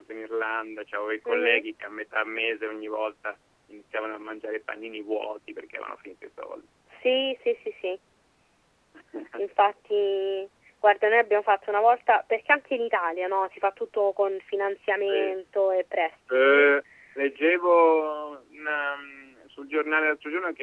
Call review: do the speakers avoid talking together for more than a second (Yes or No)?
Yes